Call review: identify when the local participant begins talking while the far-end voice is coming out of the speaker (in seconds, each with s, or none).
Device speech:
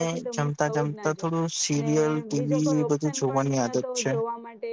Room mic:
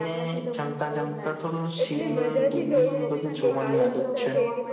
1.8 s